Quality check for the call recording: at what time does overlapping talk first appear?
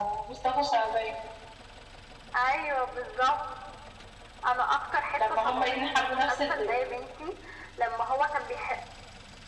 5.2 s

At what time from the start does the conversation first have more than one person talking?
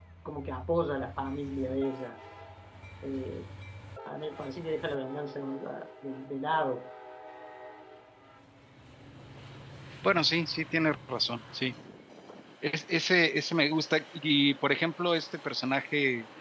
none

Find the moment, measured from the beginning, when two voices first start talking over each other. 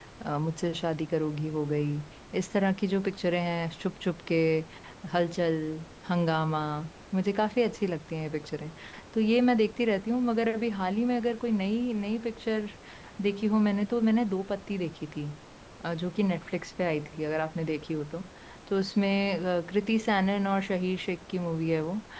none

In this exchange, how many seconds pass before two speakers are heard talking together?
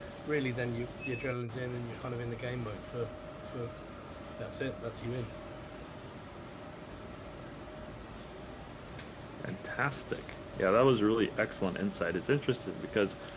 none

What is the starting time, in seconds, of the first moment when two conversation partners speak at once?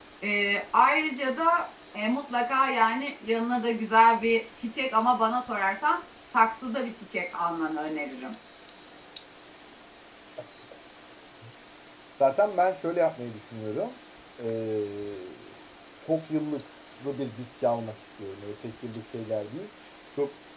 none

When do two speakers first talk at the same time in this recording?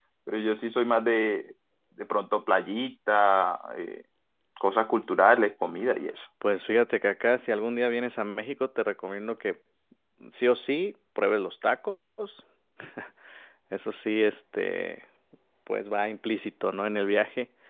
none

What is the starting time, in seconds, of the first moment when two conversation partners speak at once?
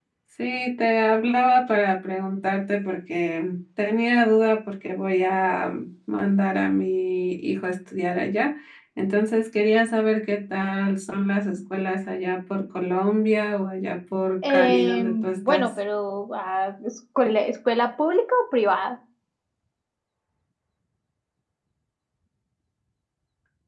14.4 s

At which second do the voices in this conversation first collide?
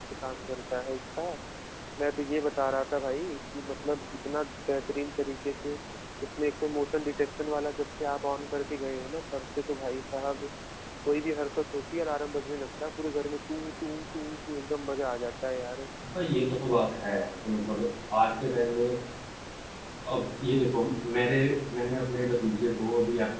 none

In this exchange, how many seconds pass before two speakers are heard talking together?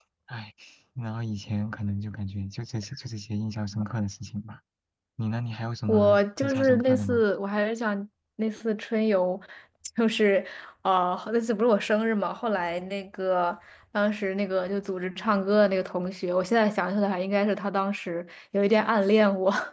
5.9 s

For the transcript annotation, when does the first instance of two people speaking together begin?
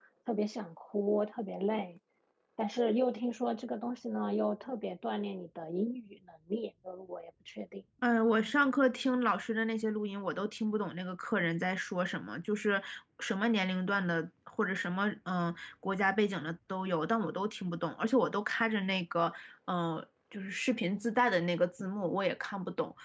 none

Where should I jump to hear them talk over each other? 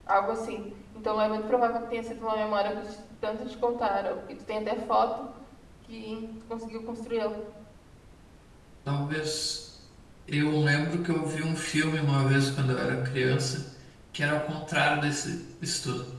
none

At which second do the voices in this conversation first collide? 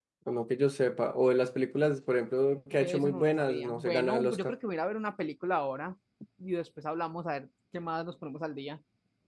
2.7 s

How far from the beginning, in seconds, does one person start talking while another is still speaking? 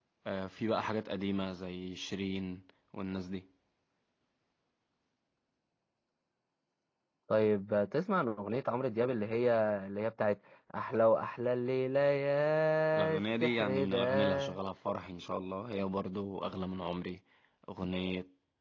12.9 s

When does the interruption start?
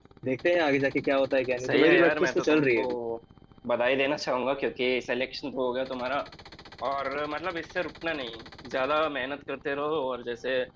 1.6 s

